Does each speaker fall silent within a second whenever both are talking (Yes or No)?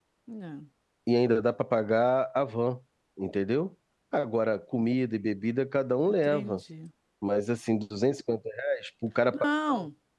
Yes